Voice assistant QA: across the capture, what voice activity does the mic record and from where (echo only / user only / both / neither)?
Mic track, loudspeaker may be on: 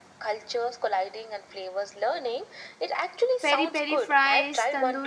both